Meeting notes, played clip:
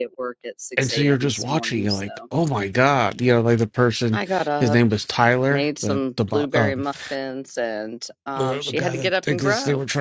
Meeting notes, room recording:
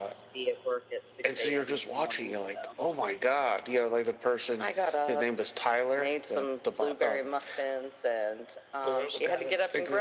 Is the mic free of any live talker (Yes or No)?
Yes